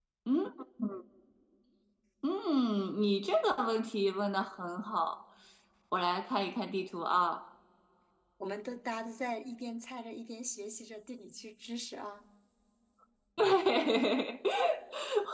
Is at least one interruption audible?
No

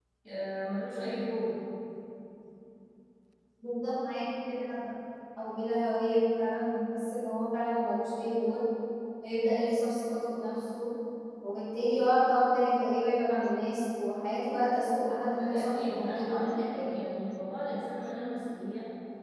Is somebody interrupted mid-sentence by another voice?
Yes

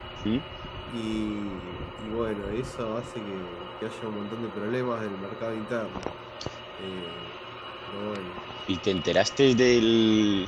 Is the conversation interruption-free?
Yes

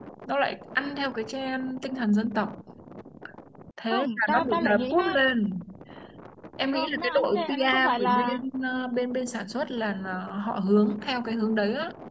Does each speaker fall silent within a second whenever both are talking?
No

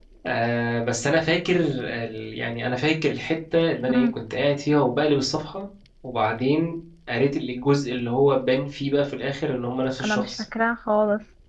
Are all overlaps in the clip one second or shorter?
Yes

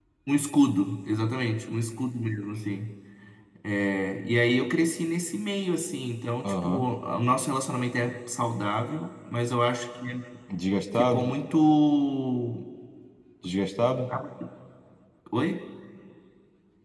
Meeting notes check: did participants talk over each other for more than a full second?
No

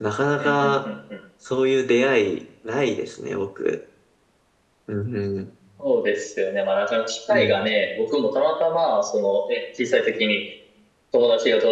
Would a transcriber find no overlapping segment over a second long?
Yes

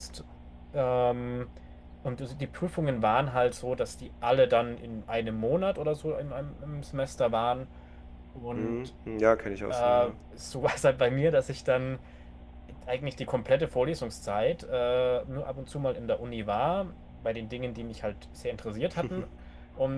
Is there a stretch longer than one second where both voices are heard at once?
No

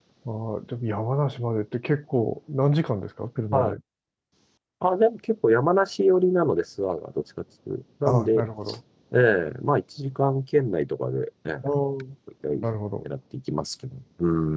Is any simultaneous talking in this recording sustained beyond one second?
No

